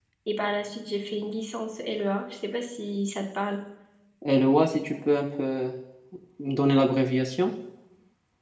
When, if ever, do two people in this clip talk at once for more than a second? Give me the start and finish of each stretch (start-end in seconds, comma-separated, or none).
none